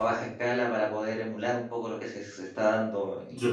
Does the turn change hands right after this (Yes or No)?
Yes